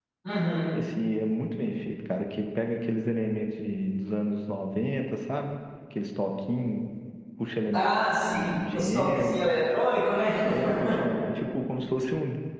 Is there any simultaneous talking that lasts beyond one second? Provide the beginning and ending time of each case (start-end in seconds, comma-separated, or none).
7.7-9.5